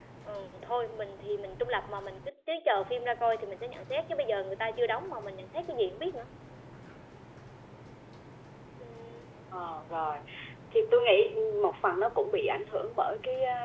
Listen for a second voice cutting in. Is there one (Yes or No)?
No